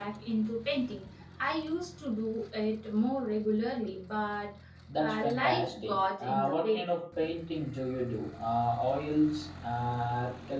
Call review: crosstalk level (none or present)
present